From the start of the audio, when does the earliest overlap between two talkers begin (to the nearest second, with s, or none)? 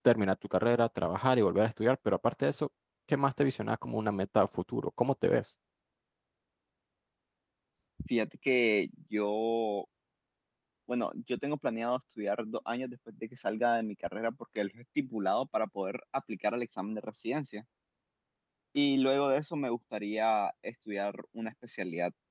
none